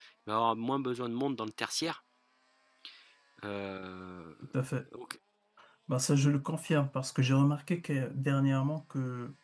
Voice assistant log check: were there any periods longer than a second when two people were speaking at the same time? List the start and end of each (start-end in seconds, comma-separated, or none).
none